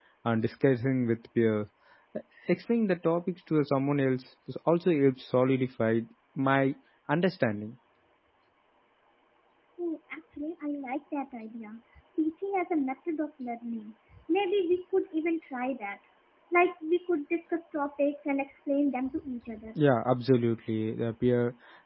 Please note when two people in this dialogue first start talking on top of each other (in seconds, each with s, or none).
none